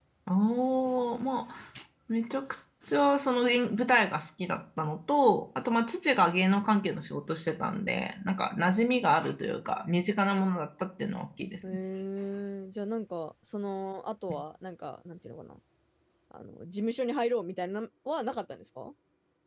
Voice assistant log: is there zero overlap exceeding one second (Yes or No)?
Yes